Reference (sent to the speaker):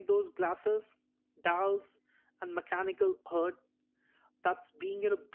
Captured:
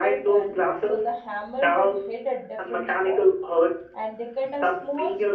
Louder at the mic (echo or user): echo